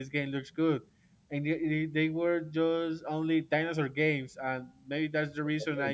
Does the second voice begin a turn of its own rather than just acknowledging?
No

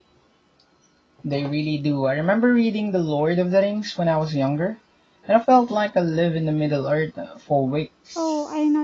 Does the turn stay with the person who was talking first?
No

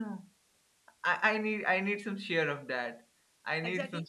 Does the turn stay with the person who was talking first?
No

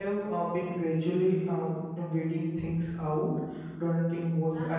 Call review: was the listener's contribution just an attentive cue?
No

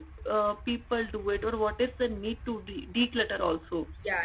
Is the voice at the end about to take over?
Yes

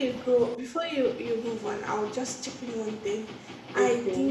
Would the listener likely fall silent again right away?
Yes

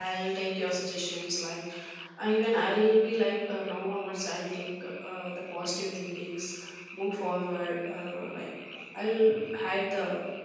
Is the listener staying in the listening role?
Yes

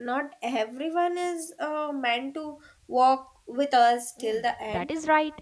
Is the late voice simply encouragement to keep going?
No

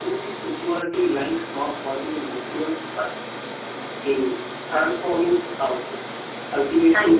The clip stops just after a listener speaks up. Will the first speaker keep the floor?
Yes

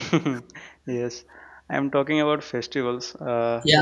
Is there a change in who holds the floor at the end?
No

